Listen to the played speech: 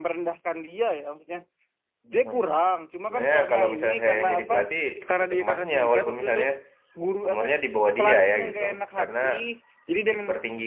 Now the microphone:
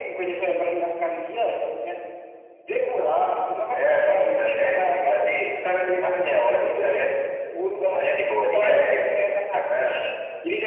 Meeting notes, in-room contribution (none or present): none